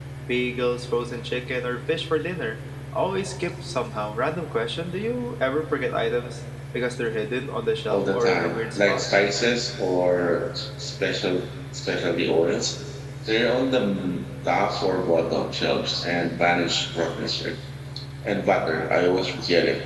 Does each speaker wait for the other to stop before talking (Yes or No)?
No